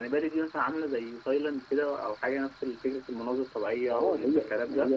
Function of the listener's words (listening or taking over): taking over